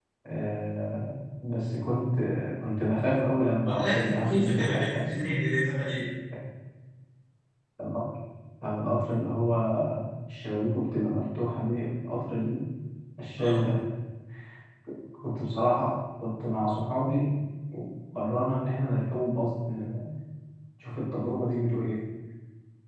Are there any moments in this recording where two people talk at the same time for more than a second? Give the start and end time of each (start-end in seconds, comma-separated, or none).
3.7-5.2